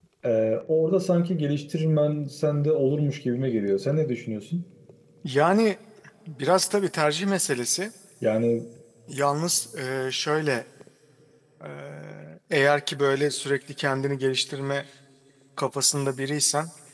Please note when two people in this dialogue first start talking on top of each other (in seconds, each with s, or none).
none